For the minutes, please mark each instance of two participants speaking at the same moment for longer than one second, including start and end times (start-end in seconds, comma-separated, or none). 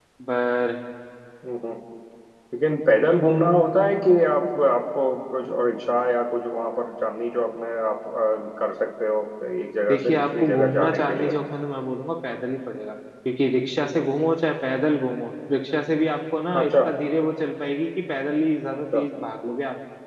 9.9-11.3